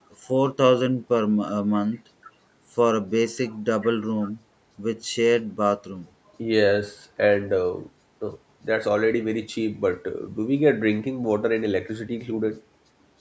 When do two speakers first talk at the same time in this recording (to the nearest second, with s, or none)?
none